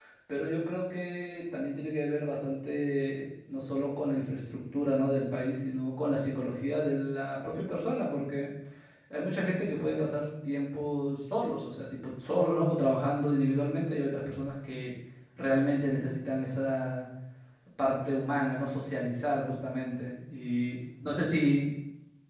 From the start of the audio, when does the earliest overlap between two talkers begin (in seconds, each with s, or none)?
none